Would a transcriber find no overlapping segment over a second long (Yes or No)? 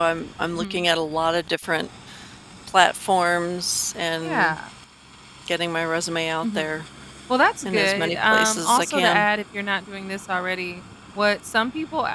No